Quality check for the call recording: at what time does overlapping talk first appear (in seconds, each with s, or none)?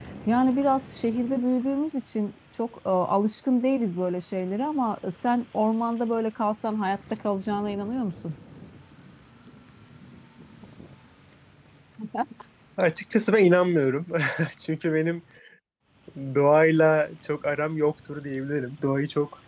none